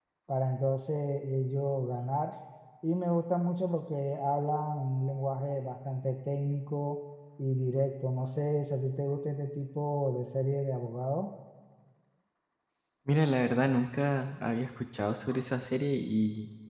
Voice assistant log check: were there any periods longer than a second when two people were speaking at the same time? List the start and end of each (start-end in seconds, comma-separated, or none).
none